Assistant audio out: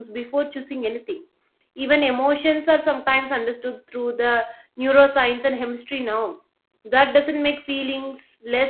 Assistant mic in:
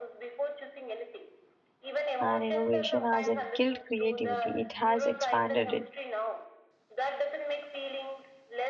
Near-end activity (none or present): present